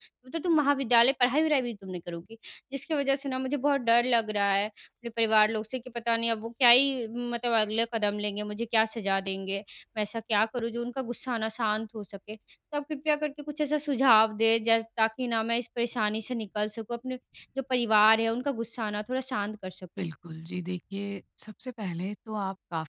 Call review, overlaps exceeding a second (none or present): none